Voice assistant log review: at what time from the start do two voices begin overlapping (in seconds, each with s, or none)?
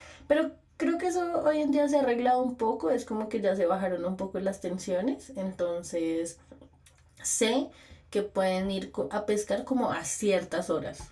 none